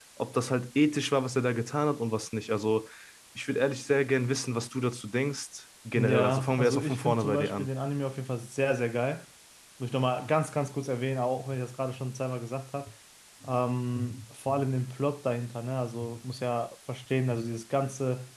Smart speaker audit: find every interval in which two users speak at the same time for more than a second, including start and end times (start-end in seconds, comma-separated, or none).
6.0-7.7